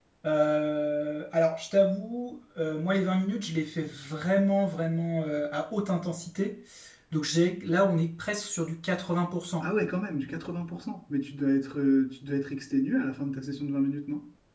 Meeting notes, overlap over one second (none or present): none